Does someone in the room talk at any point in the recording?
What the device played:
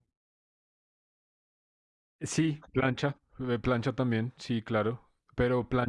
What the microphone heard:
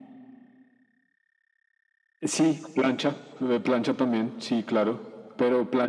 No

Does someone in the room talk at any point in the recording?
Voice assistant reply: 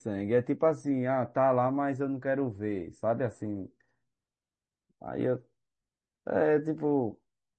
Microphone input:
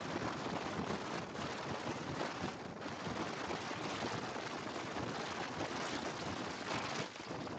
No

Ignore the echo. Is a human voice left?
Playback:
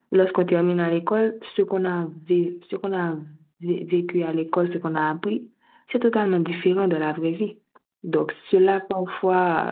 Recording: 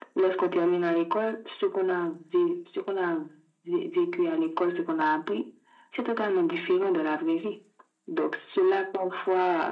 No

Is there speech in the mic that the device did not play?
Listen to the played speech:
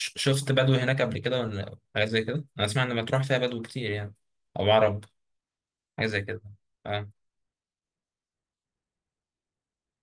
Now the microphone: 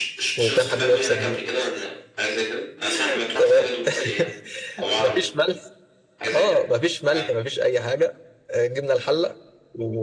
Yes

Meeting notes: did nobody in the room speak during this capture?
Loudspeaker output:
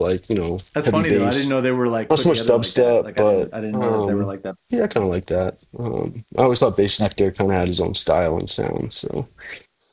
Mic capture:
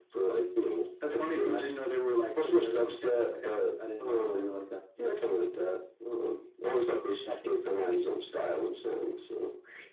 Yes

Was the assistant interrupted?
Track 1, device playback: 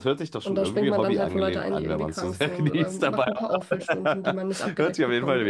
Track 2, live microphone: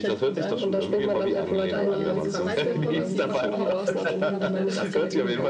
Yes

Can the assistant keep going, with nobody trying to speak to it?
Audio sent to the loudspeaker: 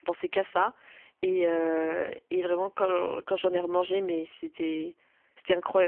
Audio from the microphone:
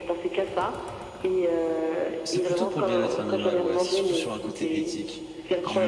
No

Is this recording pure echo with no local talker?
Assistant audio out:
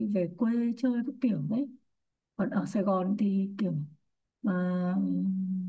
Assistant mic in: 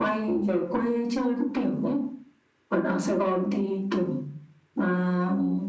Yes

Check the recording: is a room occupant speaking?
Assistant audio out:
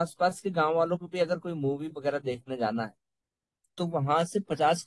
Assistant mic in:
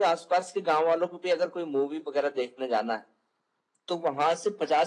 No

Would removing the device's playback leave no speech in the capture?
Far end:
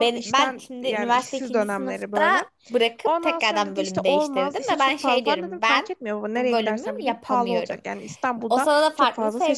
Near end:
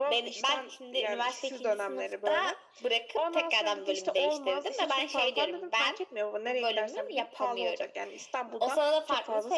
Yes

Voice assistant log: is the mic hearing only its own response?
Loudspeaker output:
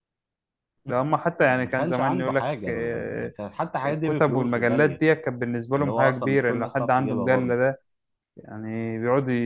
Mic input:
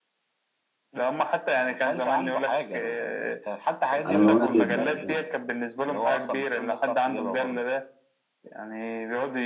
No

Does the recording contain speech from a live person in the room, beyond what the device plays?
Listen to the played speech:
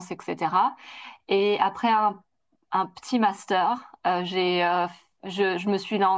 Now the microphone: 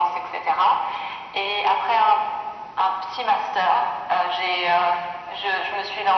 No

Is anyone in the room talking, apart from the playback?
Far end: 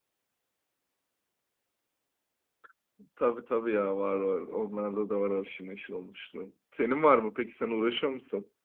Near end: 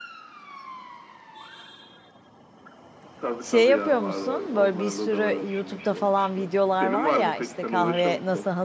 Yes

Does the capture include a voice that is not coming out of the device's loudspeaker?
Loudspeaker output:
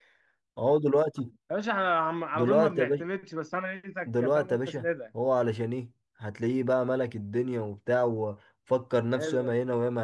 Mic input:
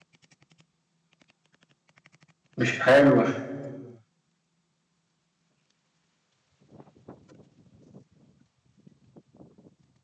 Yes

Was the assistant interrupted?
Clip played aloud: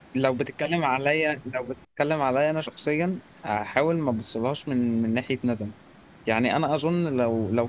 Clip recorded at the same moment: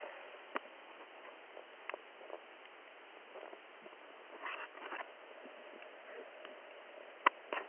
No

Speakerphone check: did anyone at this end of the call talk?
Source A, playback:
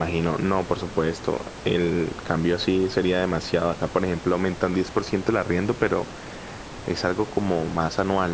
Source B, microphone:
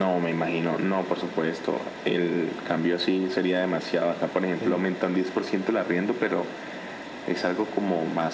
Yes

